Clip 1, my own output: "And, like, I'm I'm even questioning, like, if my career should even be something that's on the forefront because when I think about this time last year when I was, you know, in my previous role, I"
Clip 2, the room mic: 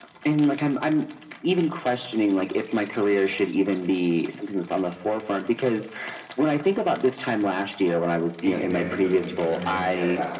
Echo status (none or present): present